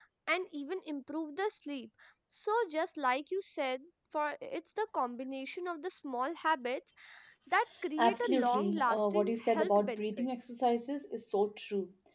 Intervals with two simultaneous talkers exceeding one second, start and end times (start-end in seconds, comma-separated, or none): 8.0-10.5